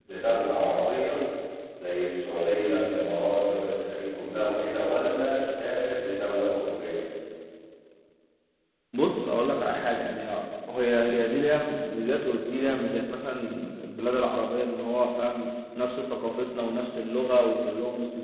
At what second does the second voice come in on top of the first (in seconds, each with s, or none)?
none